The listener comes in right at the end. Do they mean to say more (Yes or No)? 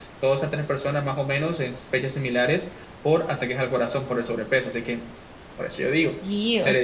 Yes